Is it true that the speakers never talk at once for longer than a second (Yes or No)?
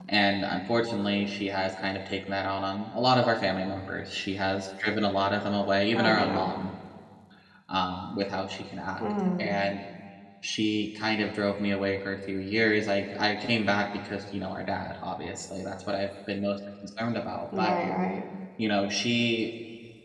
Yes